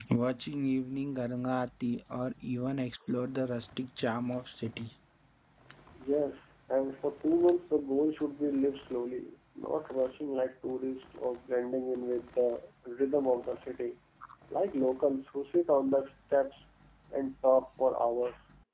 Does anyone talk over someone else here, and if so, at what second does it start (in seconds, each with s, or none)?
none